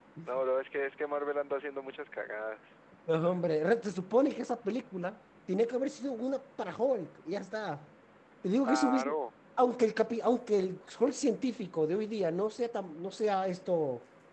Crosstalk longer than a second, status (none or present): none